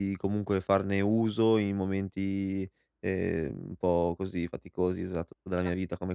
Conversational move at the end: listening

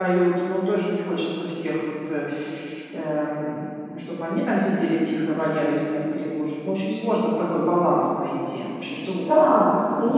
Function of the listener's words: taking over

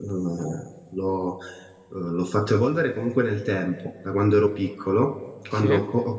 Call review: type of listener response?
listening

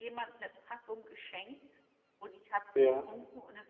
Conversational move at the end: listening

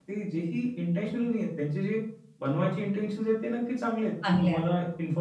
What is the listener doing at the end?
listening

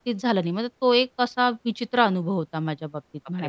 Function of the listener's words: taking over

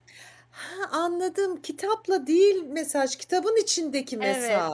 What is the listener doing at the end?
taking over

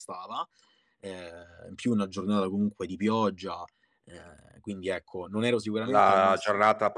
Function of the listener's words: taking over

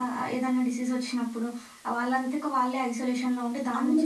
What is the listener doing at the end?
taking over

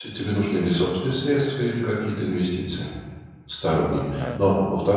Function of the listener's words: listening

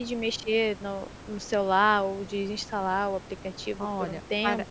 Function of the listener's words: taking over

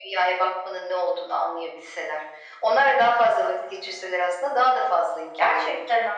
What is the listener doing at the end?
taking over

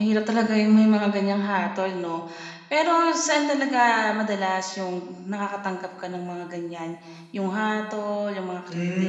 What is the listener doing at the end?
taking over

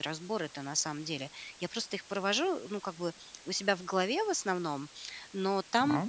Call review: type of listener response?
listening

